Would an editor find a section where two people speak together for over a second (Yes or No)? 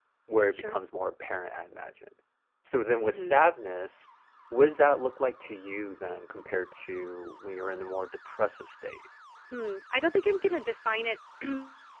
No